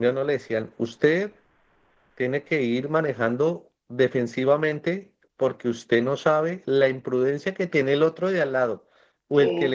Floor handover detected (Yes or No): No